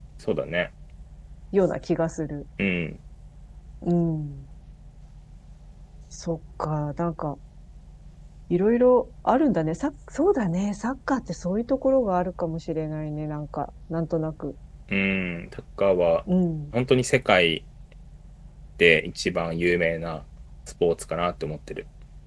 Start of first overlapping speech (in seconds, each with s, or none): none